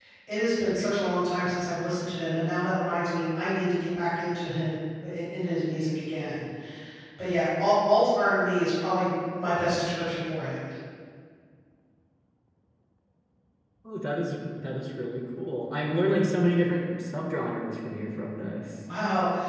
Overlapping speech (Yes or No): No